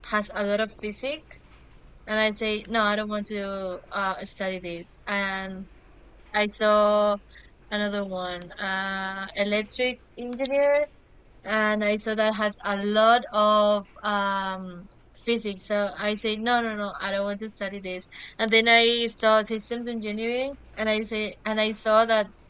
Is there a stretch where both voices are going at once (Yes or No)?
No